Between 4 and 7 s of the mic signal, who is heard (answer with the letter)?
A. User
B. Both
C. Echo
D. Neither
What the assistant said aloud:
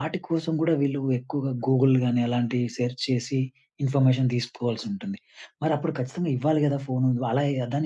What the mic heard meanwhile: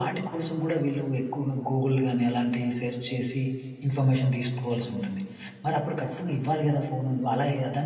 C